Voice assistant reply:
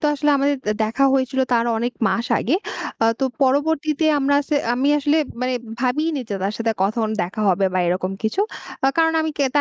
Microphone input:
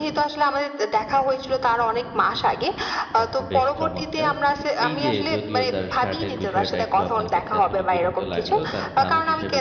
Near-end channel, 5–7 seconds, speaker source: both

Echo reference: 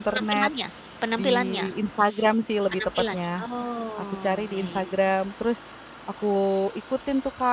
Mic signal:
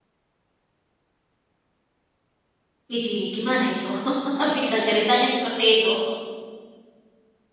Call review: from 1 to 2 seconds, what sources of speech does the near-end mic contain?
neither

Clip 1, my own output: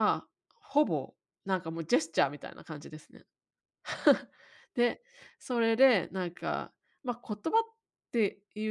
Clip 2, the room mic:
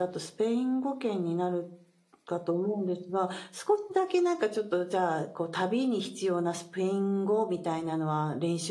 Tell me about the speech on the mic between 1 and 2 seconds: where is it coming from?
user only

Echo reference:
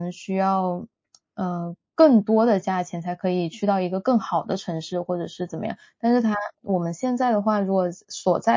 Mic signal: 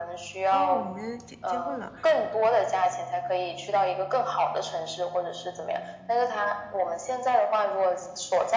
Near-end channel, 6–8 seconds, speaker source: echo only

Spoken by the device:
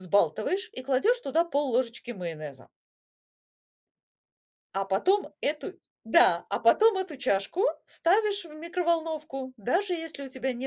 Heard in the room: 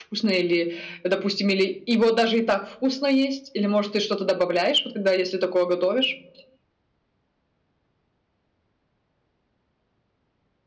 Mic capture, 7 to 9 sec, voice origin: neither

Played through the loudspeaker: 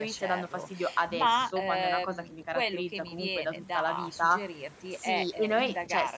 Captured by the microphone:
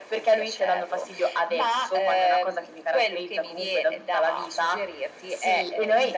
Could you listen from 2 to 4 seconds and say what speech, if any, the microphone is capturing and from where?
echo only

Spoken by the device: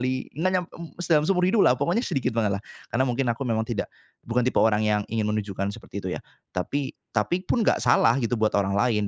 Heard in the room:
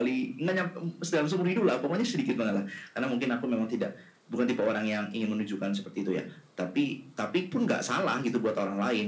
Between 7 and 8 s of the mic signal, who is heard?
echo only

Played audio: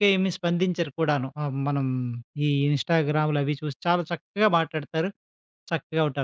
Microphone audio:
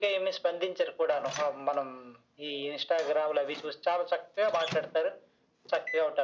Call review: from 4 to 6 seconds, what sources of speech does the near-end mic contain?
echo only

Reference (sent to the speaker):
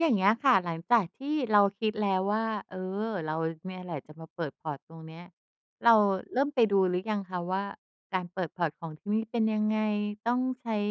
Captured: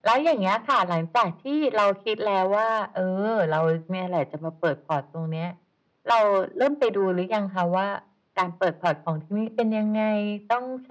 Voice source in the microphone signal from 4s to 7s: echo only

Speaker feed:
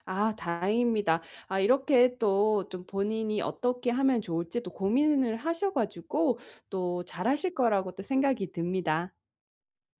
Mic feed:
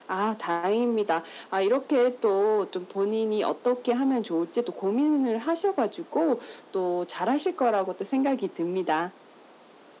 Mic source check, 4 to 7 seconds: echo only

